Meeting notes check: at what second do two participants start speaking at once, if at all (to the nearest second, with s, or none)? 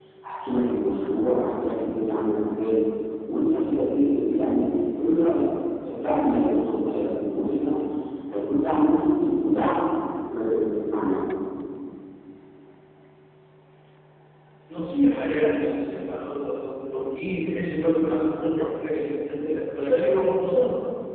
none